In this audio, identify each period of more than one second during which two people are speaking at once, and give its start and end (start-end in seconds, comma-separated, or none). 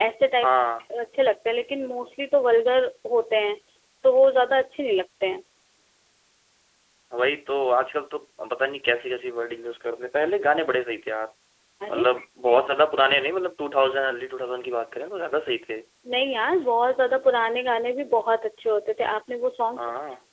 none